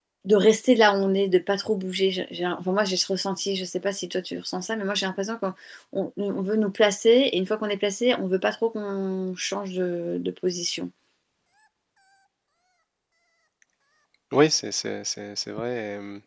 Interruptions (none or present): none